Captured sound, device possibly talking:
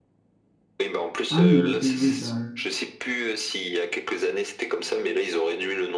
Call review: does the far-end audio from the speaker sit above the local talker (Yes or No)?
No